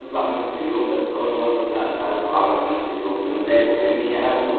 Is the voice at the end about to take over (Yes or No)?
No